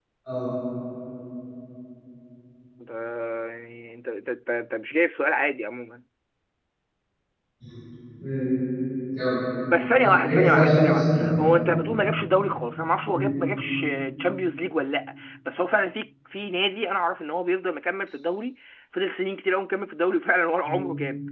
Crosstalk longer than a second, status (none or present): present